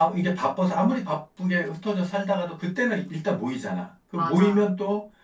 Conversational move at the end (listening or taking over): listening